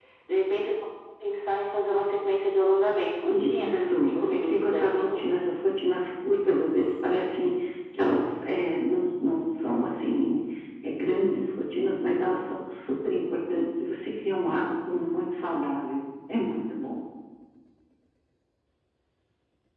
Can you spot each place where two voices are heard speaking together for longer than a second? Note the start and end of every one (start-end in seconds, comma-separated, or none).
3.3-5.4